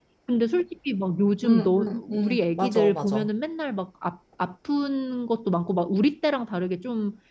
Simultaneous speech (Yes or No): Yes